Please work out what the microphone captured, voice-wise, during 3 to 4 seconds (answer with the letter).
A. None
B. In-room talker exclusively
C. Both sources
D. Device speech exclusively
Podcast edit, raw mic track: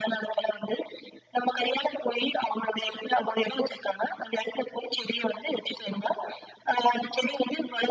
D